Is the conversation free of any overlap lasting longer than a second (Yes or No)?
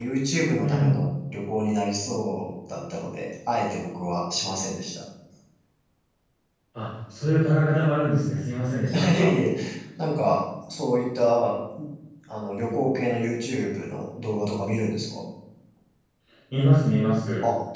Yes